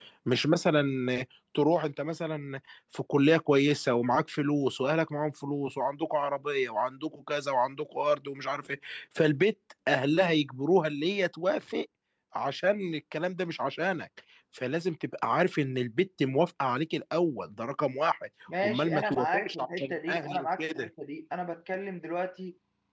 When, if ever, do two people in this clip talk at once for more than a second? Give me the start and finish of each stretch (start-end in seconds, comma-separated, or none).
18.6-20.9